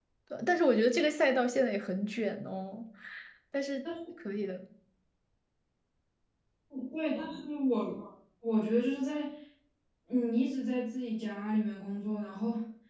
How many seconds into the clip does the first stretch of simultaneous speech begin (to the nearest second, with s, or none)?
none